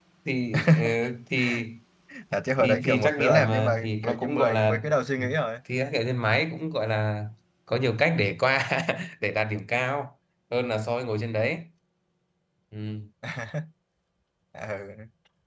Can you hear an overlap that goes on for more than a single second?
Yes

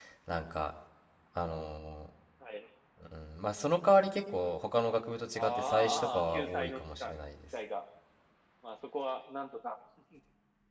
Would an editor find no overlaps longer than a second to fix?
No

